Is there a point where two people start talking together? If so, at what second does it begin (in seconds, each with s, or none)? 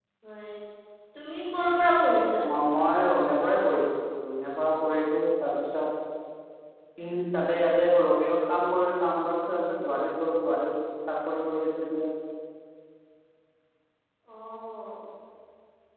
none